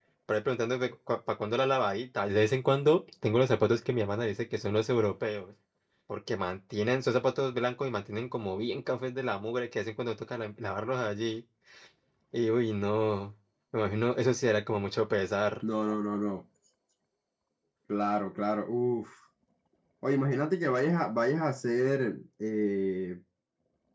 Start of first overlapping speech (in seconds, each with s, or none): none